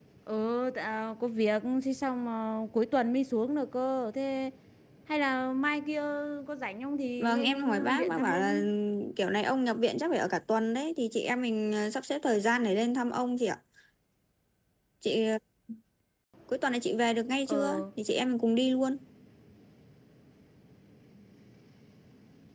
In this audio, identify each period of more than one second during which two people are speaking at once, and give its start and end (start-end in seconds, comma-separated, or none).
7.2-8.6